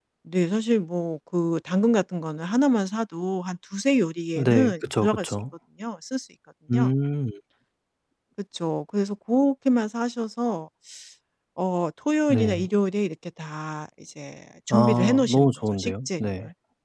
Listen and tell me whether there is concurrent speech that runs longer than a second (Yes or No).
Yes